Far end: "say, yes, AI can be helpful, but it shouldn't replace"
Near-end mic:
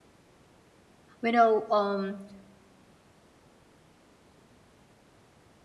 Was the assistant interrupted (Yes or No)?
Yes